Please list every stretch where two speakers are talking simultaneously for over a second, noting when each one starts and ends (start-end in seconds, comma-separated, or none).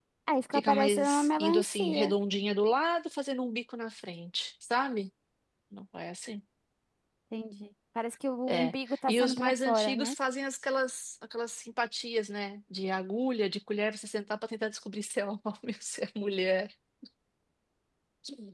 0.5-2.1, 8.5-10.1